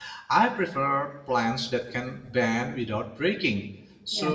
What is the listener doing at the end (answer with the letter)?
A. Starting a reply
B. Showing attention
B